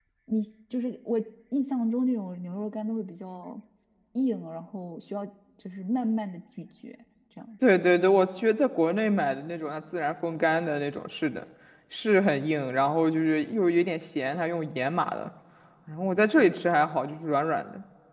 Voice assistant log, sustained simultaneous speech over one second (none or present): none